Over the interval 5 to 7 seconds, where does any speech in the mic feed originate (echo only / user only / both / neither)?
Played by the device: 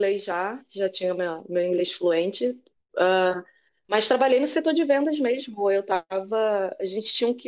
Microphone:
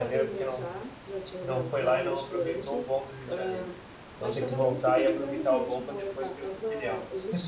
both